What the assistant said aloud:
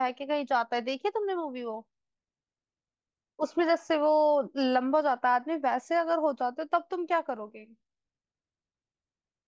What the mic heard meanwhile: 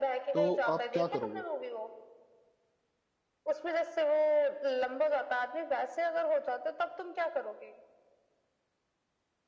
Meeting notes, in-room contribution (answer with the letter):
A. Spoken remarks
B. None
A